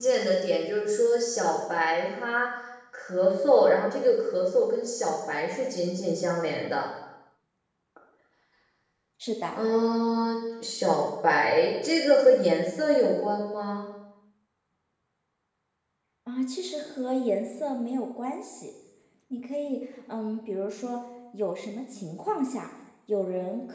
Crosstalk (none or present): none